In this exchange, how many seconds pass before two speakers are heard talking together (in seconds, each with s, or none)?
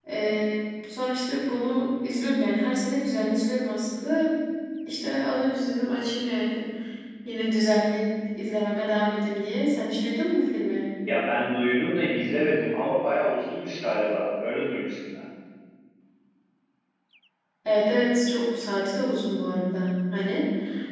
none